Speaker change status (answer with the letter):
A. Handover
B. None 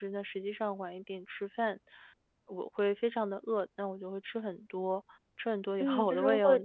A